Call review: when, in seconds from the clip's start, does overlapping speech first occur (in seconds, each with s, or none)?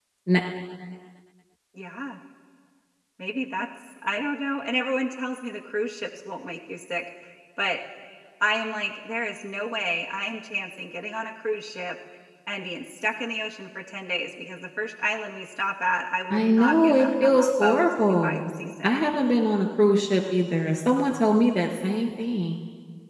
16.3 s